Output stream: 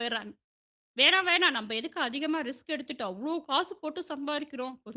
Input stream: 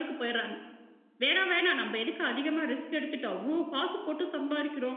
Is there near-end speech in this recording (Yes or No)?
No